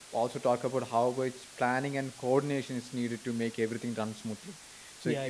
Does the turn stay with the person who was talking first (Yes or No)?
Yes